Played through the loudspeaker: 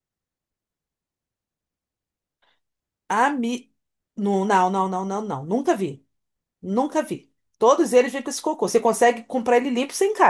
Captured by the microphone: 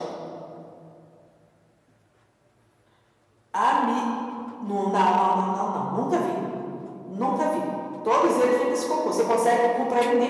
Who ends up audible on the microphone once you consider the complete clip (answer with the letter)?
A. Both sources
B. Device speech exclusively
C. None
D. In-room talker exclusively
B